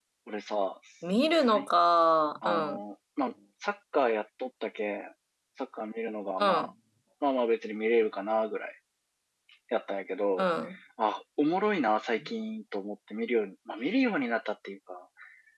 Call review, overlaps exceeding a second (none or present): none